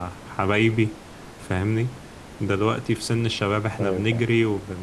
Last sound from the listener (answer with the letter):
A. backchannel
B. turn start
A